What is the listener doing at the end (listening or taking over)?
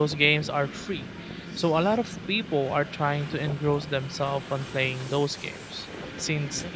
listening